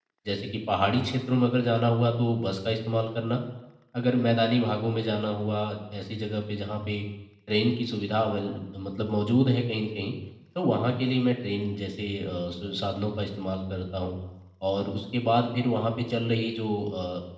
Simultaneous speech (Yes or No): No